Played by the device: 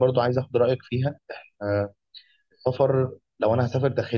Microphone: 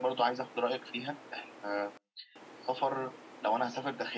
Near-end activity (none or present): none